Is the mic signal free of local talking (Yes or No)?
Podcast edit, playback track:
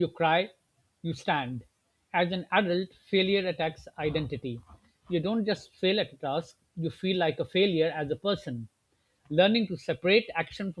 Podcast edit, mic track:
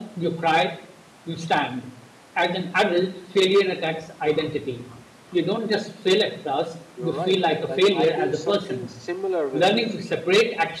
No